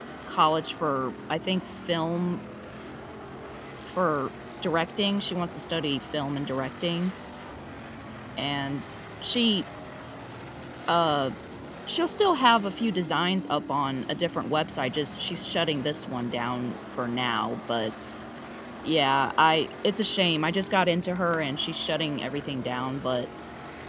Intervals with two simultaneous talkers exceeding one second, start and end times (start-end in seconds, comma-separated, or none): none